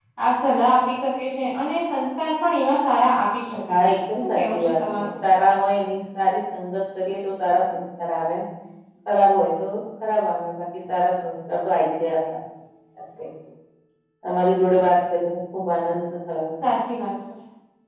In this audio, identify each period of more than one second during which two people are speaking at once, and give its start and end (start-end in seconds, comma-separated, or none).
3.9-5.1